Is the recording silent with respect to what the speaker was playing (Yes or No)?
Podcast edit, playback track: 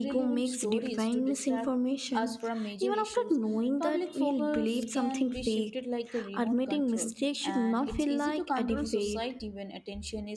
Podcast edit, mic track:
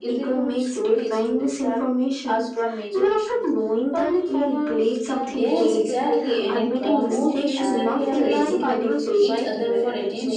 No